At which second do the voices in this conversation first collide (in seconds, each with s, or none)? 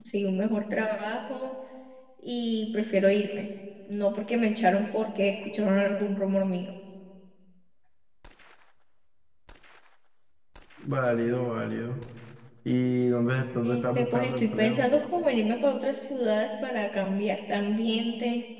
13.6 s